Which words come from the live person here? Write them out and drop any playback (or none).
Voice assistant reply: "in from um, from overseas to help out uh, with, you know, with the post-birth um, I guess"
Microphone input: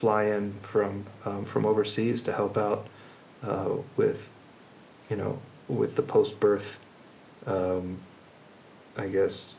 none